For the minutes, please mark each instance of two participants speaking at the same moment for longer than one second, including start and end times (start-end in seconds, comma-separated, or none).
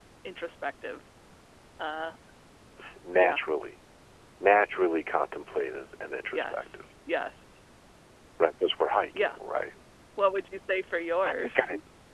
none